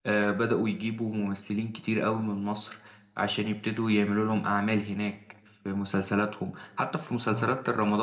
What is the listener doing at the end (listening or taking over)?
listening